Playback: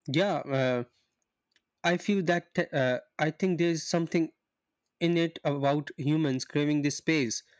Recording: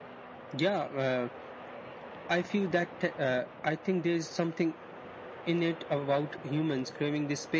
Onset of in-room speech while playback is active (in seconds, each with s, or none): none